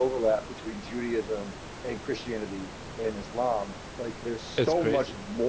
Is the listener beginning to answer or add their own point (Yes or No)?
No